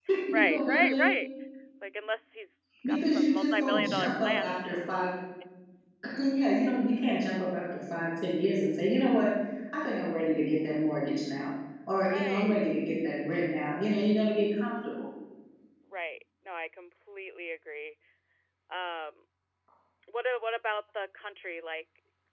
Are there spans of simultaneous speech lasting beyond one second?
Yes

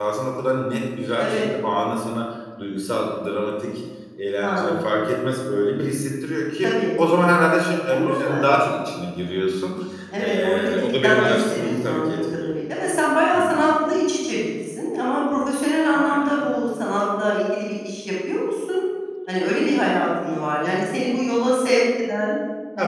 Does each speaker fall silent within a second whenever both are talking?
No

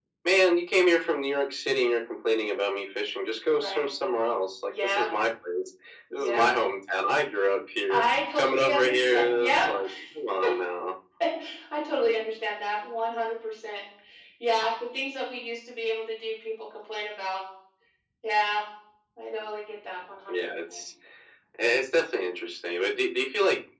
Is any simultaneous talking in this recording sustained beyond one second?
Yes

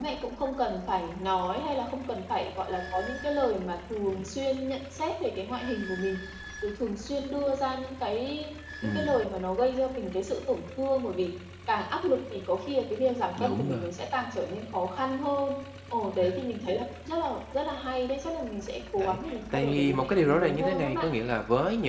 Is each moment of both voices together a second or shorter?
No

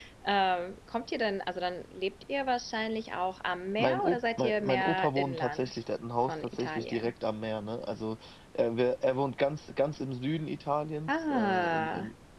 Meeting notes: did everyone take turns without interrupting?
No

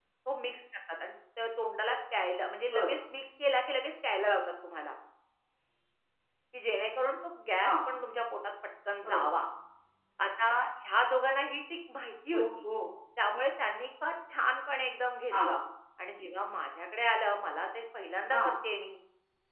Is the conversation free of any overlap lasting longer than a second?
Yes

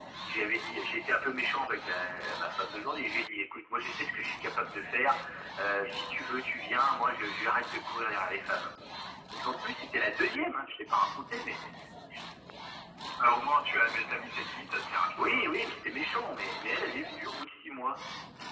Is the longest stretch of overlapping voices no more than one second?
Yes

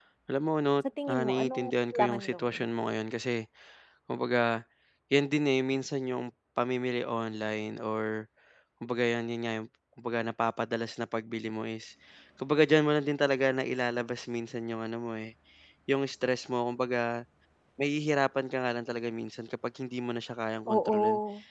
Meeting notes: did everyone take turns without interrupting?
No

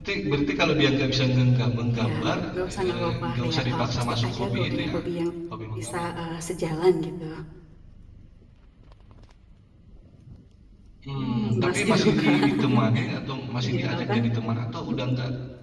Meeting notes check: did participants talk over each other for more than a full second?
Yes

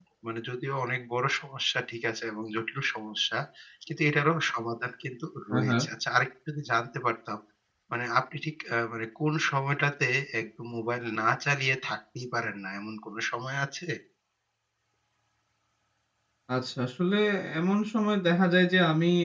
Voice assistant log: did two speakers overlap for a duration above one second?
No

